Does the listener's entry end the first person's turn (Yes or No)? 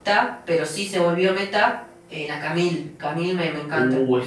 Yes